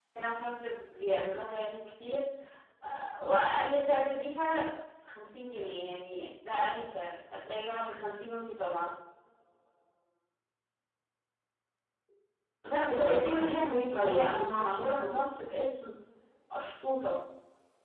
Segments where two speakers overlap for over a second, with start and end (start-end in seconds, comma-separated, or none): 12.9-15.1